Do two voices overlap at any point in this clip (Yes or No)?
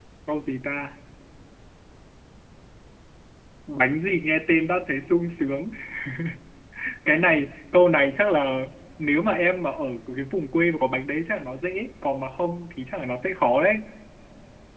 No